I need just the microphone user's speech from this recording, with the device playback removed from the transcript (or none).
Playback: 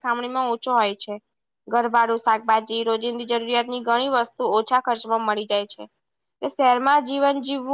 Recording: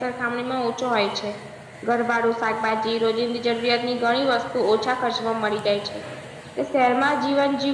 none